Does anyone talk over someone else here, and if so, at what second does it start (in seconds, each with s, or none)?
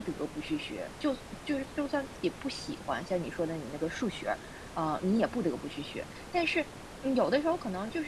none